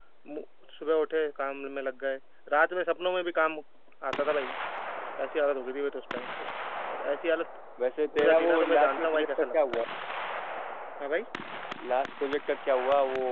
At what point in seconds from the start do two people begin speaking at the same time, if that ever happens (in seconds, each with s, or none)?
8.1 s